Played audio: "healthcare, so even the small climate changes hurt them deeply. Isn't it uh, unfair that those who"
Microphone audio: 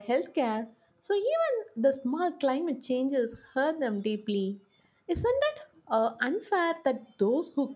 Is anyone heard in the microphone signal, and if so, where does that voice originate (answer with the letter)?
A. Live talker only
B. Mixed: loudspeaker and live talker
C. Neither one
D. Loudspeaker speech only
D